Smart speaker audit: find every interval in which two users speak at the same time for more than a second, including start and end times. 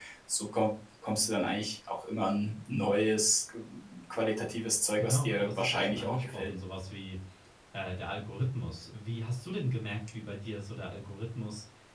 5.0-6.5

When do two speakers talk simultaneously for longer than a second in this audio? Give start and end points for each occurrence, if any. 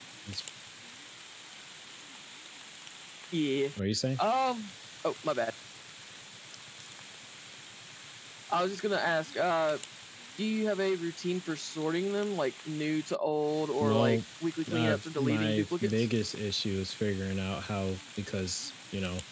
14.7-16.1

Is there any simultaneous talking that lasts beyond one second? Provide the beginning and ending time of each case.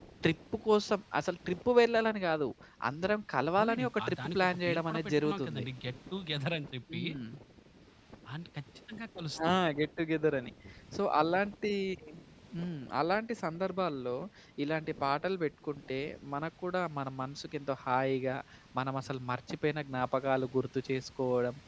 3.6-5.6

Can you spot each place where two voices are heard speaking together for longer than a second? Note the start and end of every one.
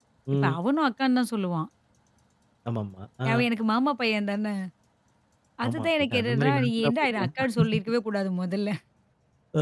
5.7-7.3

